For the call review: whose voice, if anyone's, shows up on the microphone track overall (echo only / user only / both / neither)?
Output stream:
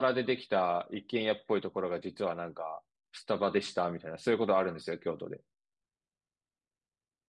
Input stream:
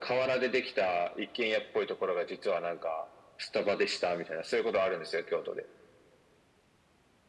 echo only